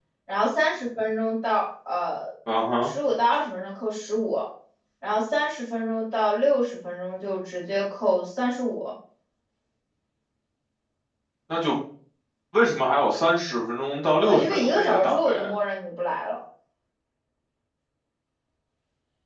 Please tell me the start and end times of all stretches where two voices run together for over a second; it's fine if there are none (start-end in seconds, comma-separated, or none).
14.2-15.6